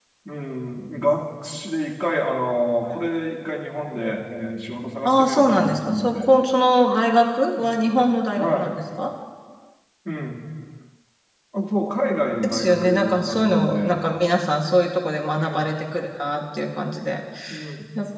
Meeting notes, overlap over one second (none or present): present